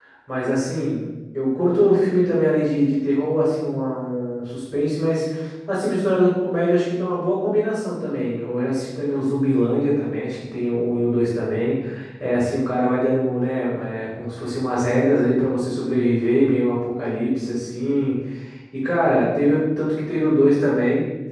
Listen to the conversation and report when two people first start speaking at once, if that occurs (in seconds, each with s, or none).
none